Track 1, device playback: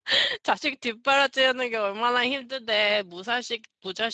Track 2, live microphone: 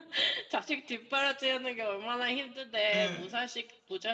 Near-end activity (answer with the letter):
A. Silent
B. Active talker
B